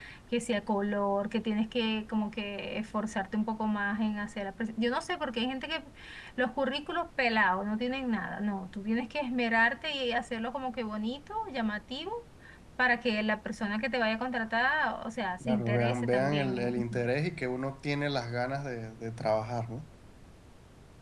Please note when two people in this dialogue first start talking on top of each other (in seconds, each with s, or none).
15.4 s